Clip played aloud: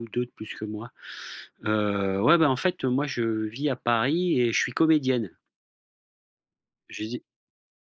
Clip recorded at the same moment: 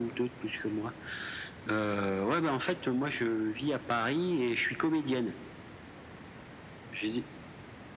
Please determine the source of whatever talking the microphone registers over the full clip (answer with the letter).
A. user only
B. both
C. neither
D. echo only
D